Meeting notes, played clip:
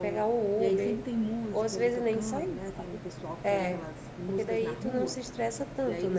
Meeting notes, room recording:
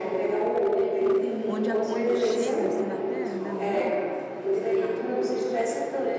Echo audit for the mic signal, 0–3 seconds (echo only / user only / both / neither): both